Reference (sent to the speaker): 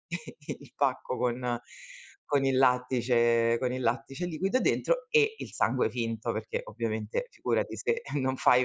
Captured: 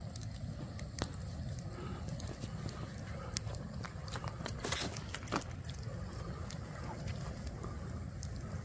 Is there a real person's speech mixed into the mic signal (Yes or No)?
No